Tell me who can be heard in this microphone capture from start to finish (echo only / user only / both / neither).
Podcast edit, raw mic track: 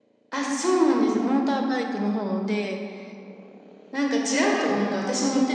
both